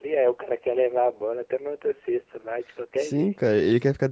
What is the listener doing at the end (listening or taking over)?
taking over